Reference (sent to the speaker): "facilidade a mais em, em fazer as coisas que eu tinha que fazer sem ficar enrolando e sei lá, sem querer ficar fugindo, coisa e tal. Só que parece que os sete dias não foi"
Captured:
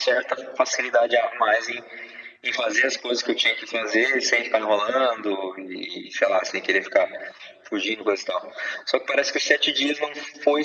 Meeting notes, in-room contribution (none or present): none